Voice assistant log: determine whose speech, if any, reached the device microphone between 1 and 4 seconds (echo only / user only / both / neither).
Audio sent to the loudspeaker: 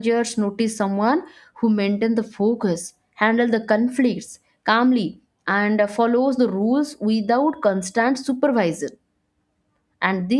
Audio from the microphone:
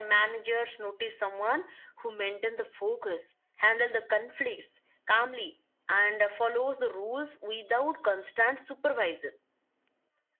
echo only